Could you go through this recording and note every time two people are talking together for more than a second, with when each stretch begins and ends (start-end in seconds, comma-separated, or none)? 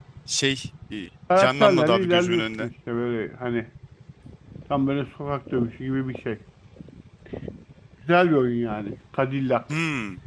1.4-2.7